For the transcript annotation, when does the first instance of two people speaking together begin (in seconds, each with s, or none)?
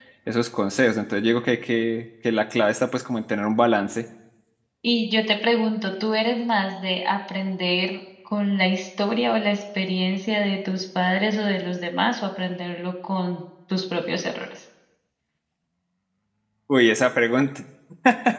none